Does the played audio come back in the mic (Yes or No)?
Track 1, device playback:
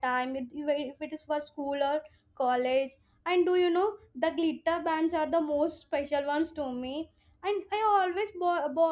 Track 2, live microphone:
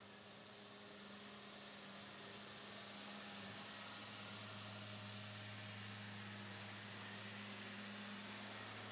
No